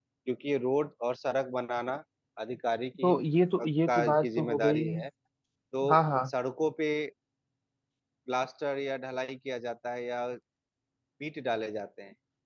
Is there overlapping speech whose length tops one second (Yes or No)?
Yes